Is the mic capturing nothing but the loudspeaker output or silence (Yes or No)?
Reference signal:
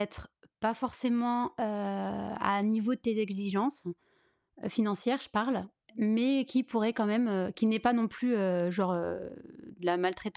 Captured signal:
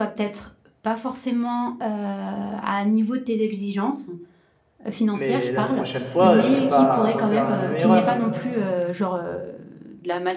No